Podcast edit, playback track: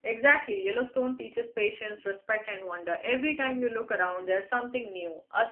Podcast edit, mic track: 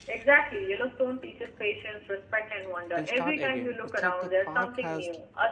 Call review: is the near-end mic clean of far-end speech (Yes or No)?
No